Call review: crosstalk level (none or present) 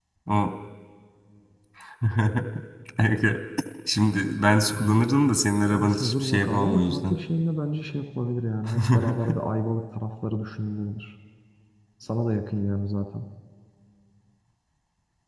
present